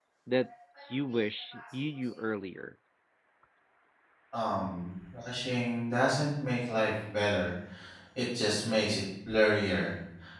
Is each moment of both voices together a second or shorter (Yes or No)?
Yes